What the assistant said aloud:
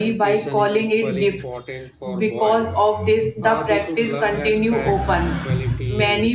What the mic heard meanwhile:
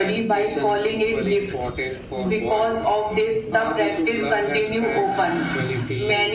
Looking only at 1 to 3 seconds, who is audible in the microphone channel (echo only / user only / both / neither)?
echo only